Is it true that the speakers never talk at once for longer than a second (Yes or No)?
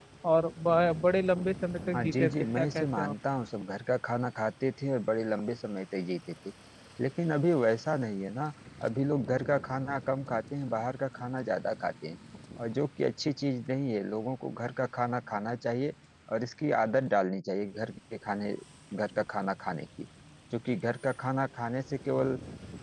No